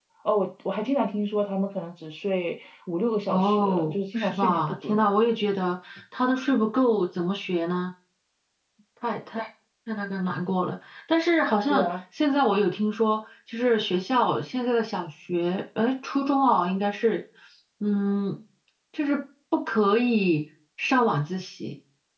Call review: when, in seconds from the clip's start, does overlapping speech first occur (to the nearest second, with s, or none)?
3 s